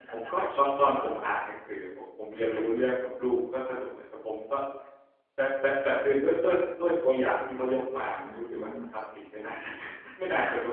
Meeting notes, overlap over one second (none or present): present